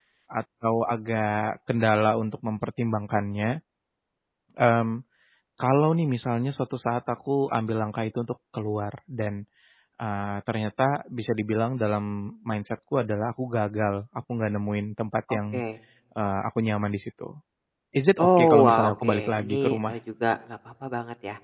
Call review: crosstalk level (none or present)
present